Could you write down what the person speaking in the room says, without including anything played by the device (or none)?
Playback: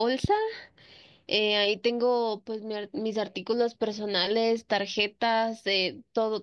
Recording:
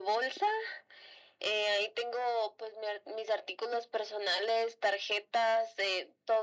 none